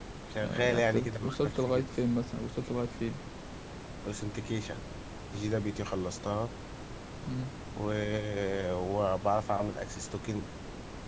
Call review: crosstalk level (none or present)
present